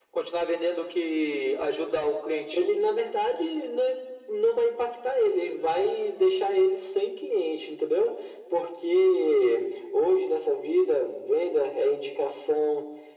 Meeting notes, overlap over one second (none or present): none